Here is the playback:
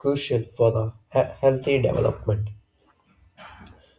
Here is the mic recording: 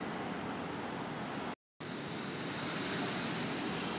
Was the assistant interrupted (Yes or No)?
No